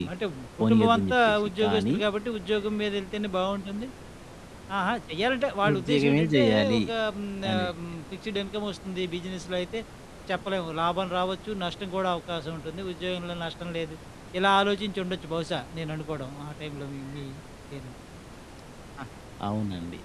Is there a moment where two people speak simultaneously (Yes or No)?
Yes